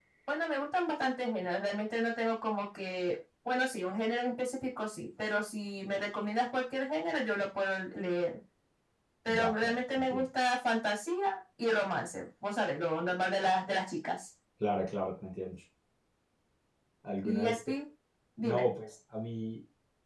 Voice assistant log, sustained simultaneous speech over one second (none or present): none